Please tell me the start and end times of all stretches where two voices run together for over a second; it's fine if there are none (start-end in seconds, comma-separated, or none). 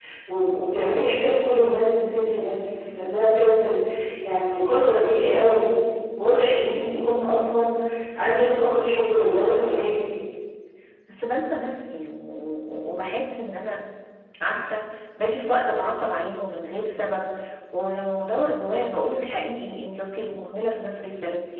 none